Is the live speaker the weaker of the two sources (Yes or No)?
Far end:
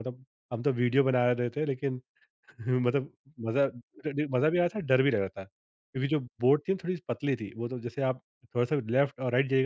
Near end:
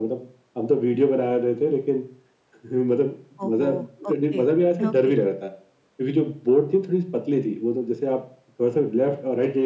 Yes